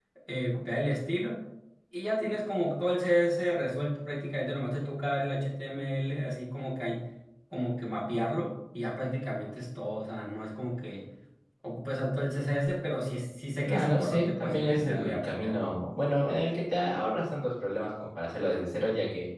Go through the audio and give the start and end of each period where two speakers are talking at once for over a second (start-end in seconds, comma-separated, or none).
13.6-15.6